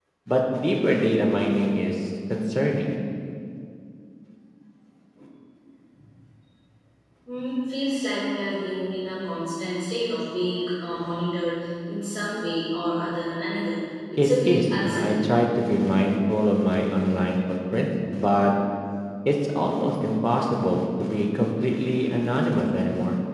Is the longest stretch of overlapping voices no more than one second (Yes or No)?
No